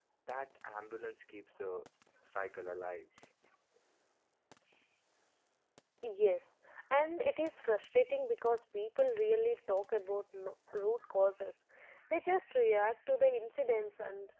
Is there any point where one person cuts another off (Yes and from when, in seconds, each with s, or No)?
No